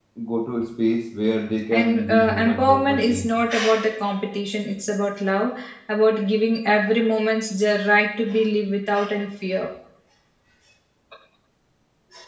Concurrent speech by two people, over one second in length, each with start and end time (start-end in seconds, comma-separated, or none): 1.7-3.4